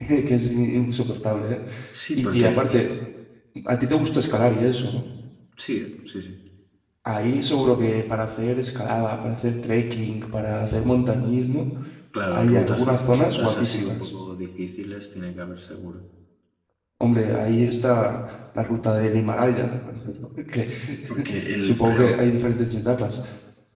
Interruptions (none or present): present